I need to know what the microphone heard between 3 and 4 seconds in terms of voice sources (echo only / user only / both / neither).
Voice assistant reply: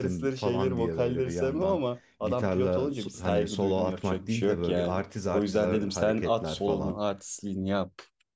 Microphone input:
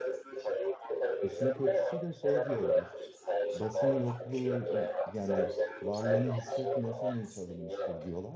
both